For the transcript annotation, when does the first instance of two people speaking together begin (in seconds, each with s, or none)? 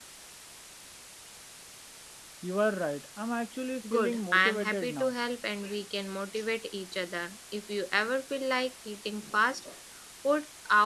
3.8 s